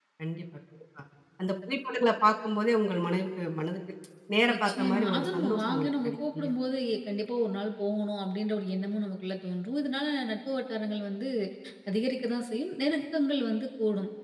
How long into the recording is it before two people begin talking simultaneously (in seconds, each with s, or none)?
4.5 s